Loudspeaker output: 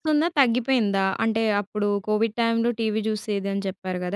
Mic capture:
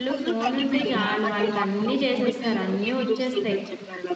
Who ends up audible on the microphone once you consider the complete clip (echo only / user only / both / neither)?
both